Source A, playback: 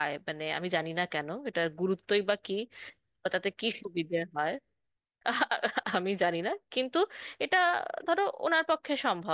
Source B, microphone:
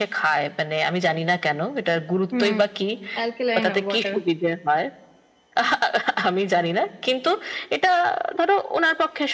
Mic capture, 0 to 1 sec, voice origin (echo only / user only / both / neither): echo only